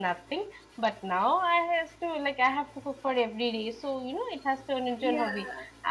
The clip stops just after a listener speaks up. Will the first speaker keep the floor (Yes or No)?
Yes